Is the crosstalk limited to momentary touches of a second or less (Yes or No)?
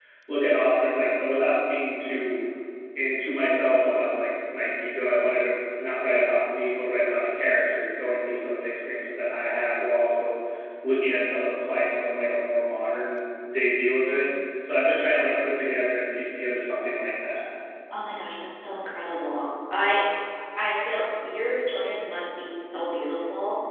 Yes